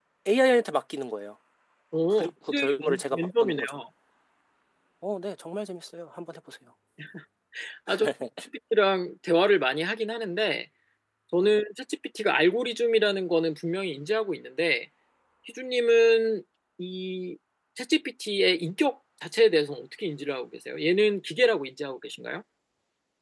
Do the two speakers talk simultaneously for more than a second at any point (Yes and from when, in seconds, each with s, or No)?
Yes, from 2.1 s